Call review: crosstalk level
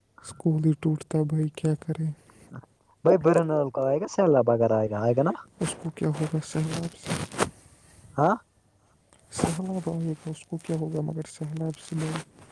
none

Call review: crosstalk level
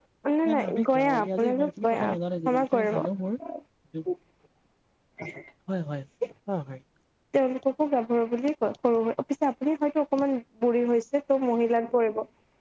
present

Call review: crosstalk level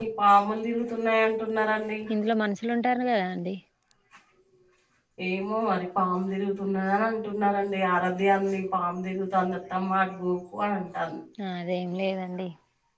none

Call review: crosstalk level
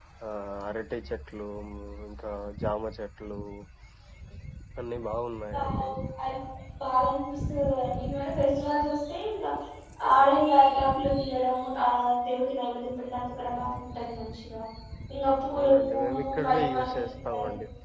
present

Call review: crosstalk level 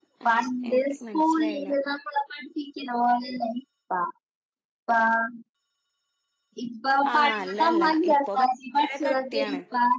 present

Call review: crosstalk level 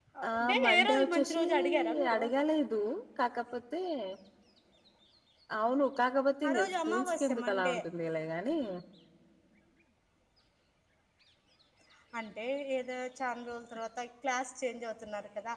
present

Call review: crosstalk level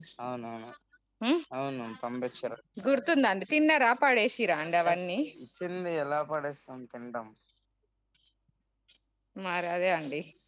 none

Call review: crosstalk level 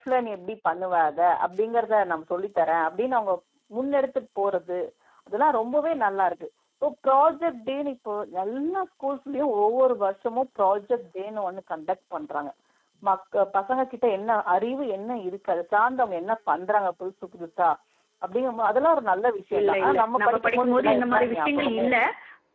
present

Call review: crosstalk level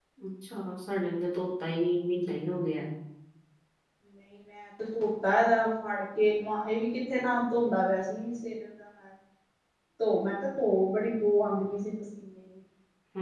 none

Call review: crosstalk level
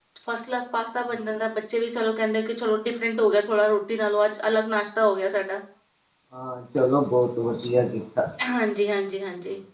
none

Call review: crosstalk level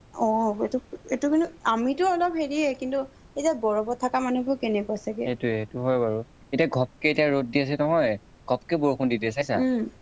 none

